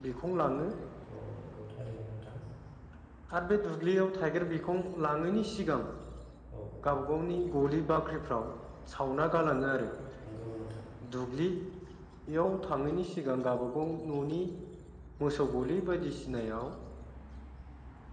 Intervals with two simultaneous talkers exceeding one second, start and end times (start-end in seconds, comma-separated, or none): none